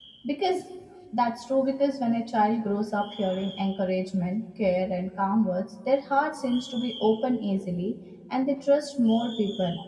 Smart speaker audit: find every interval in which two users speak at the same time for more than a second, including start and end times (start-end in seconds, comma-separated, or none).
none